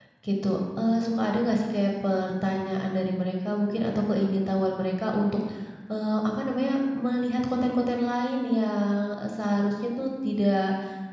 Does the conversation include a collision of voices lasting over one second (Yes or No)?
No